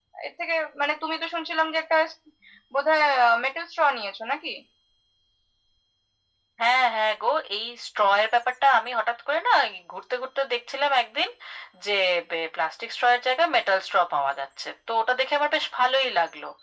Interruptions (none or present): none